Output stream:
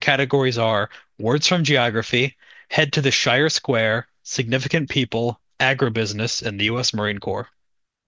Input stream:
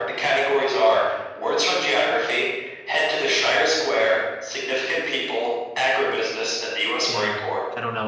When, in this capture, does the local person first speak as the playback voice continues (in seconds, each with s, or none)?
7.0 s